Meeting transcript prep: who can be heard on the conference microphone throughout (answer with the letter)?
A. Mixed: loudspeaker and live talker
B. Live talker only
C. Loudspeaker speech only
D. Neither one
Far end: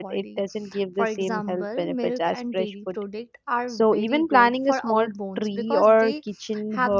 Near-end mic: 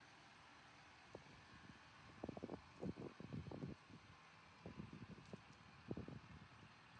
D